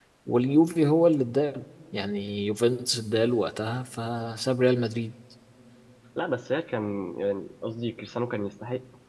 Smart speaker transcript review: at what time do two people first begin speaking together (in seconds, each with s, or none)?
none